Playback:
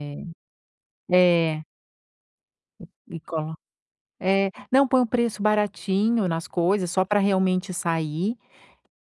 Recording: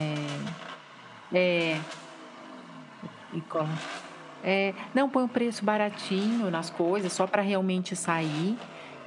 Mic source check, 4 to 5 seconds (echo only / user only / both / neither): echo only